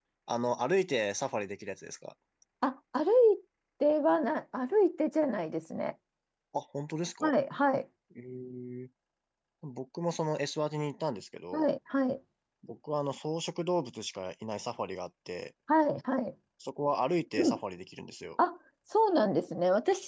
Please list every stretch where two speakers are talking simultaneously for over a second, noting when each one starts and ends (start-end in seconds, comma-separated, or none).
none